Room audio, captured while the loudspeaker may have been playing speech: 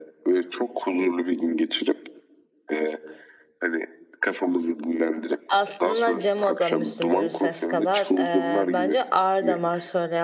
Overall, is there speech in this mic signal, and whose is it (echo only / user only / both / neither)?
both